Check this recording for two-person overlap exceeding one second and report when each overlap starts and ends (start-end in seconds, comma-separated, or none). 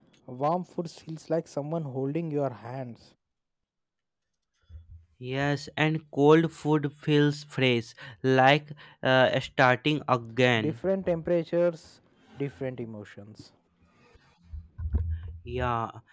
none